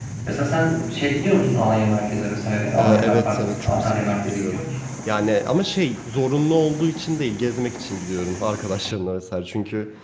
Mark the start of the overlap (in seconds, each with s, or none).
2.8 s